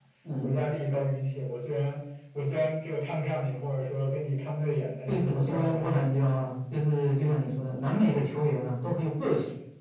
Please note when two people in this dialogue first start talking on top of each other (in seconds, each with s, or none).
5.1 s